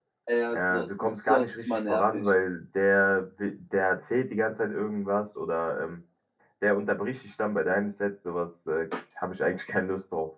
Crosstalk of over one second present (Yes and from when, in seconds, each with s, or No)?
Yes, from 0.5 s